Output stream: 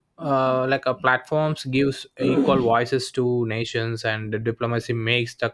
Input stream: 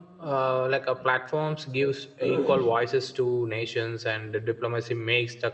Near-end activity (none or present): none